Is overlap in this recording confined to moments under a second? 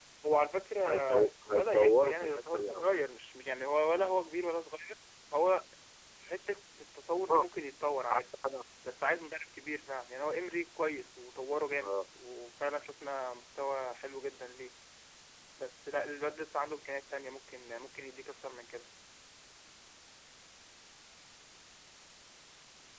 No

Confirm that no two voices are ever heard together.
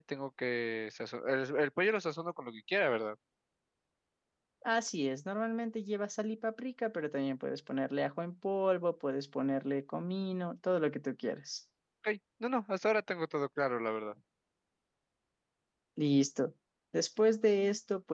Yes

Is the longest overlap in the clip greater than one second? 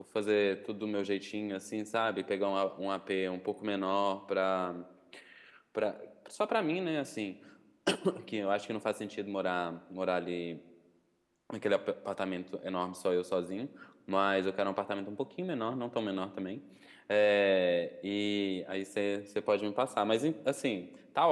No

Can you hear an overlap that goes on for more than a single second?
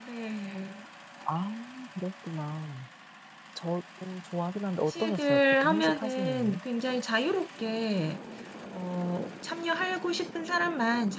Yes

